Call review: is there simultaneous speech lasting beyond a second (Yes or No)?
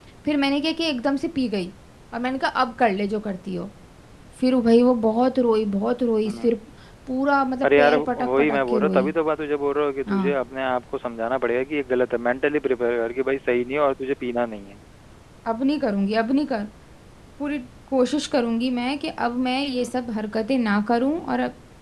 Yes